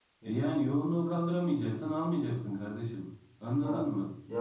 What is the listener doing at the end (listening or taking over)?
taking over